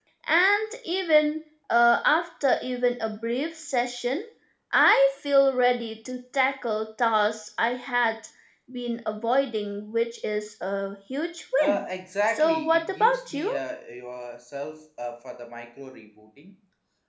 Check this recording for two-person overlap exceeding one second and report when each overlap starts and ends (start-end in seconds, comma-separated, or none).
12.3-13.5